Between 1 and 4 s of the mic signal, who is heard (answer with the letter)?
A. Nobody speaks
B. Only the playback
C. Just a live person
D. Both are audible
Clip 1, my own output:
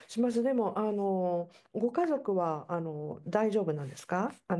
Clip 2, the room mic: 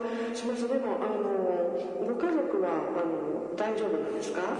B